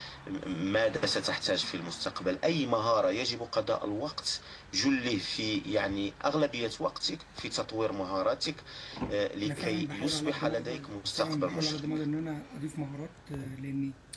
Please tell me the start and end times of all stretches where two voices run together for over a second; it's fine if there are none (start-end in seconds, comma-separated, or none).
9.4-11.9